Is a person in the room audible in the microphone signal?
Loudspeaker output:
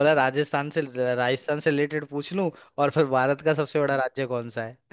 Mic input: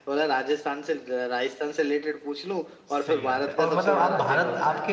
Yes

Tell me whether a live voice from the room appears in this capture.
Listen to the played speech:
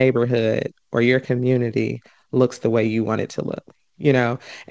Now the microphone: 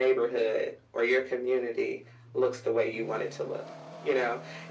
No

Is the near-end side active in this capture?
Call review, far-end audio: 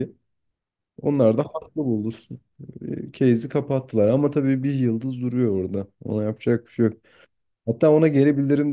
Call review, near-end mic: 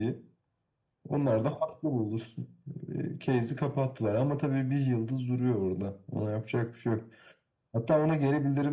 No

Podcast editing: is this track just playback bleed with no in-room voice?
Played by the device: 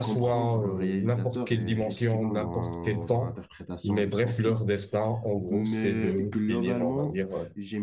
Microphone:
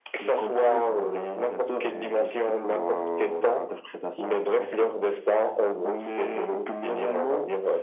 Yes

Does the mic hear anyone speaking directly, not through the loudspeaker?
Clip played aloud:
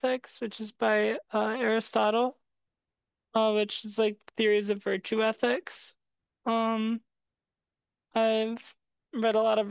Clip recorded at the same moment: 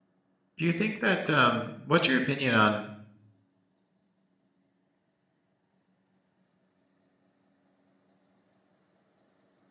Yes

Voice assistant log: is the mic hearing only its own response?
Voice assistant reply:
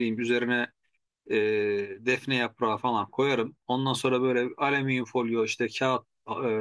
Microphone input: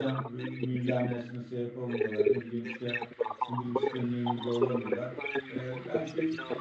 No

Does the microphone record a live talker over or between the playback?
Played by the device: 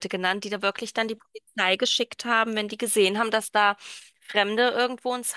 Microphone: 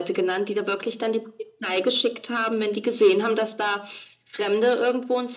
No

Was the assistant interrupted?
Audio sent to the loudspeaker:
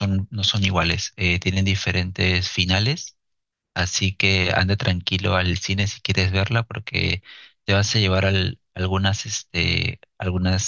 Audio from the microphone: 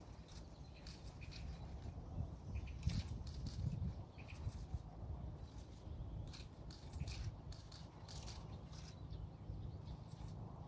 No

